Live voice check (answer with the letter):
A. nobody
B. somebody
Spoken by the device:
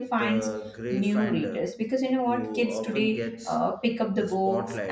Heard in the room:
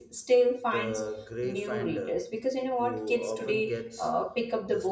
A